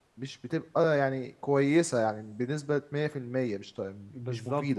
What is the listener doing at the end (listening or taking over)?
taking over